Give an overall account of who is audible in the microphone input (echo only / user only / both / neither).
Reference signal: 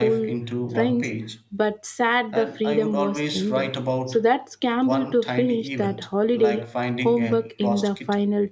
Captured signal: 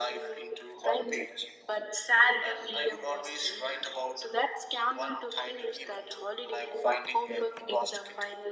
echo only